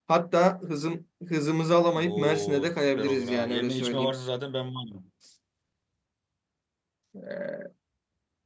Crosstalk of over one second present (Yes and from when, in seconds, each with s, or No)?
Yes, from 2.0 s